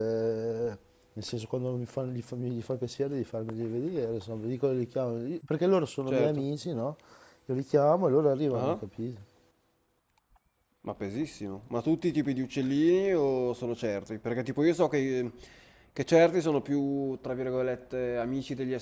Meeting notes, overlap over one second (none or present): none